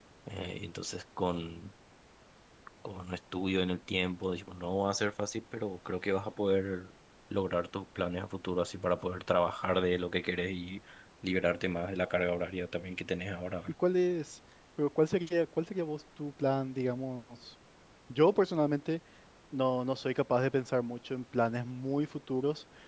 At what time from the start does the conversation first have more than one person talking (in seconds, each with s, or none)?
none